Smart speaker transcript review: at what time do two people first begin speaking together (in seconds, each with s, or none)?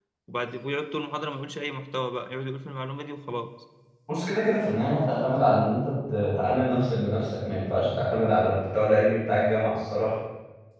none